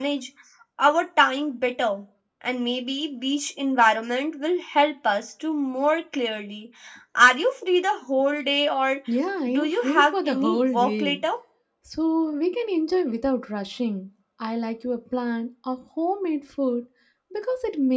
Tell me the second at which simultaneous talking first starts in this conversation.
10 s

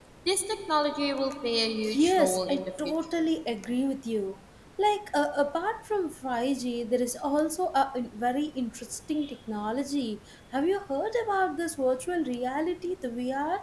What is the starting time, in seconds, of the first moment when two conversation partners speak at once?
2 s

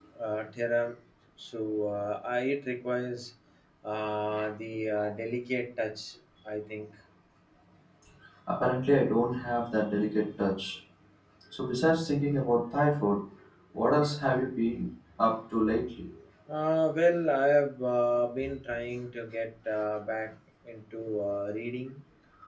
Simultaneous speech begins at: none

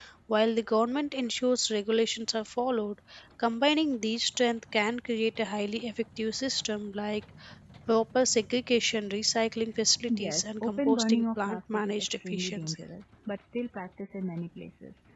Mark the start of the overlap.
10 s

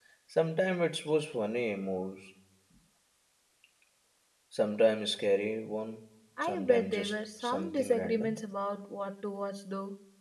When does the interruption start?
6 s

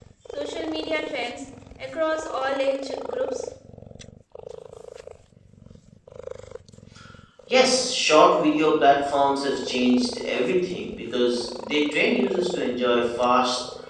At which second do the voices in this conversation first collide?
none

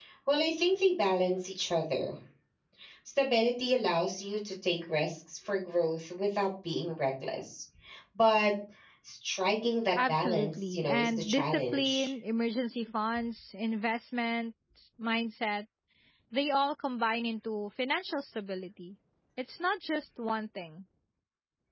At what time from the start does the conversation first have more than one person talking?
10 s

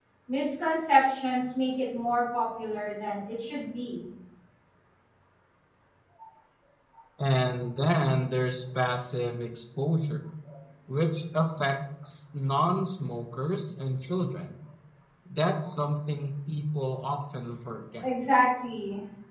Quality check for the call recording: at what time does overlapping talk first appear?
none

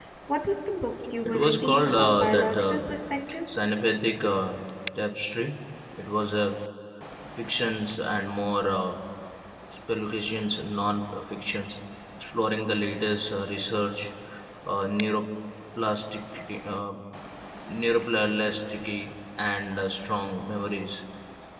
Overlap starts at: 1 s

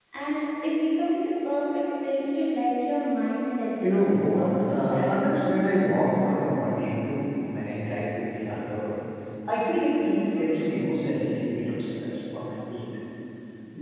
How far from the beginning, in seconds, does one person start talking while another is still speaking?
4 s

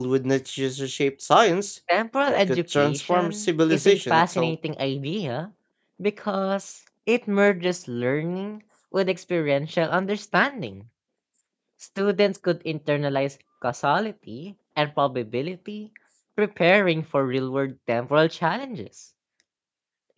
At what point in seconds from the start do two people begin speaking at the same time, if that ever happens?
2 s

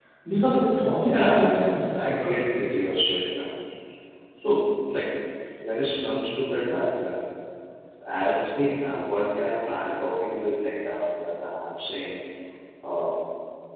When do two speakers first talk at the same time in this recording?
1 s

